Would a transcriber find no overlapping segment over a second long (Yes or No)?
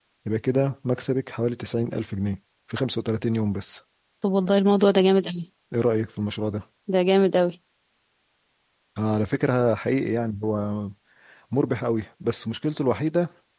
Yes